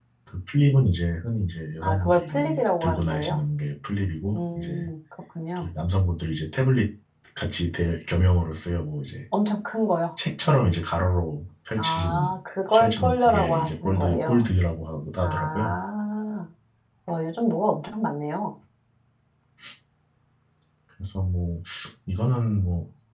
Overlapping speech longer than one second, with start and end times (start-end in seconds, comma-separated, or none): 1.8-3.4, 12.8-14.4